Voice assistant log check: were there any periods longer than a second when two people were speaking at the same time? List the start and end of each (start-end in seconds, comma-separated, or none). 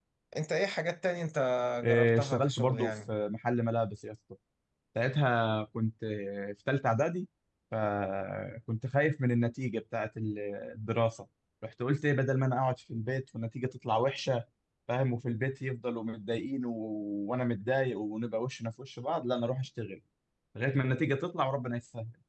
1.9-3.1